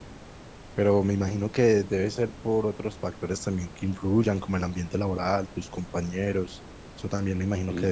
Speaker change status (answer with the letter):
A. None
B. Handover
A